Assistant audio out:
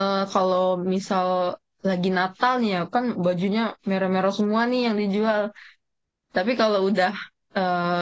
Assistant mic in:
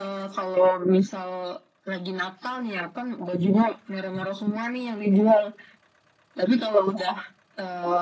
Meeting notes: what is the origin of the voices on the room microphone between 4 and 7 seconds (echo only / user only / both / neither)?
echo only